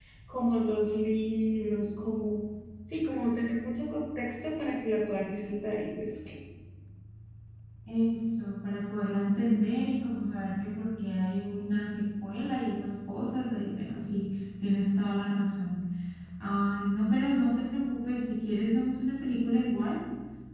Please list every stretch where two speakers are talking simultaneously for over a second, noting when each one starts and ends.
none

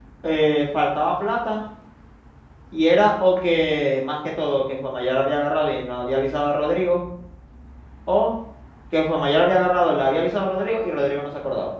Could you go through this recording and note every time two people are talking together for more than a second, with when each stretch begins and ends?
none

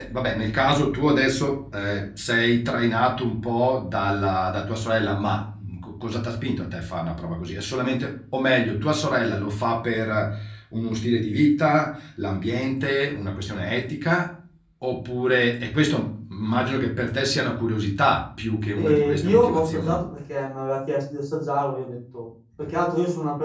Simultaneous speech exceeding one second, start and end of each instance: 18.8-20.0

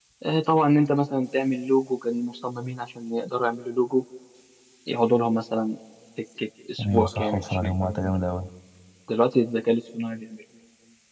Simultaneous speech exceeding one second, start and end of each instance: 6.9-8.2

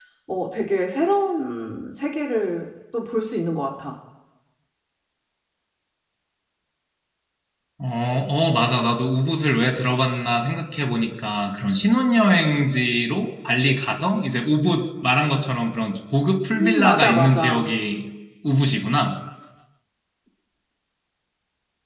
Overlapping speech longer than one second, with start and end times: 16.5-17.7

